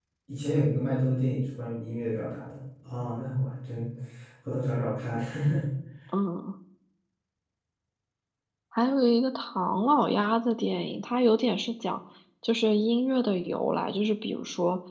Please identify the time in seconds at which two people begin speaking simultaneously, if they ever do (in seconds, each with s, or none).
none